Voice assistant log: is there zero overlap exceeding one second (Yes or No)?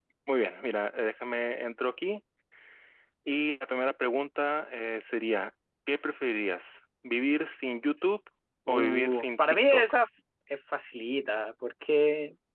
No